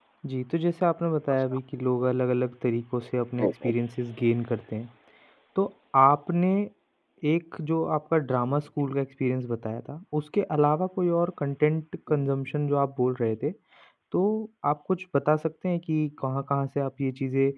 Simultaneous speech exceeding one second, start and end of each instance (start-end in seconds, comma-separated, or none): none